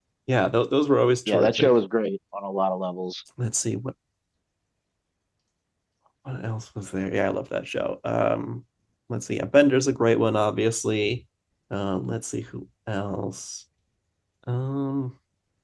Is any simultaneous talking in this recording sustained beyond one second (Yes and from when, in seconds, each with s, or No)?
No